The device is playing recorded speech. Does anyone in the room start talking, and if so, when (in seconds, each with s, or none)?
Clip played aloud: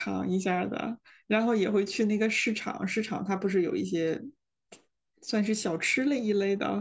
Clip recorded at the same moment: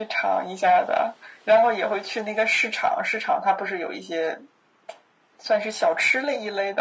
none